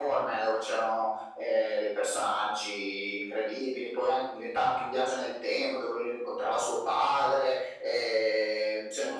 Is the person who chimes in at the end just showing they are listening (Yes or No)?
No